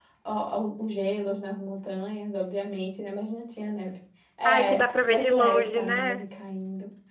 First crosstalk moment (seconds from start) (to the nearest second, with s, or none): 5 s